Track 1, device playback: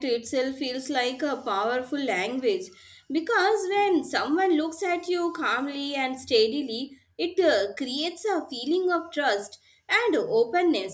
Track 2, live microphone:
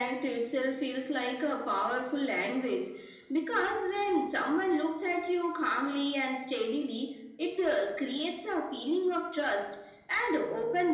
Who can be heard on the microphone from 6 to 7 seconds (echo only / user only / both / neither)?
echo only